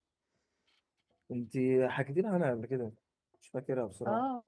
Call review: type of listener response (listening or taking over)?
taking over